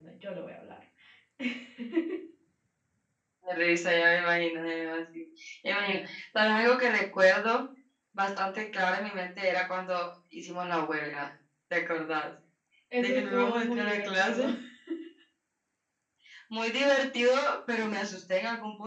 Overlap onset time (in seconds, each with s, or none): 13.0 s